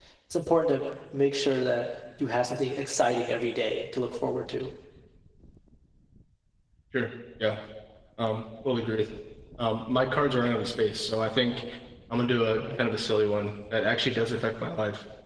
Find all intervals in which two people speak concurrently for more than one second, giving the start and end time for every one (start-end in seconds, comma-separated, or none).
none